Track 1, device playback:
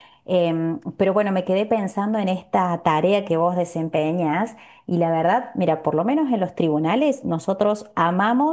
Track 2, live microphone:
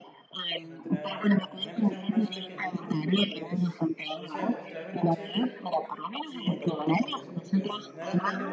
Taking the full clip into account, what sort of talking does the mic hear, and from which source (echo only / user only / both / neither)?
both